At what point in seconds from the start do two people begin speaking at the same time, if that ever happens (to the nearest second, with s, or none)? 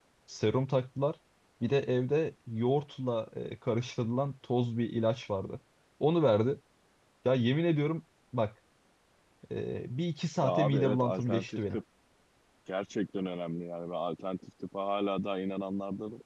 10 s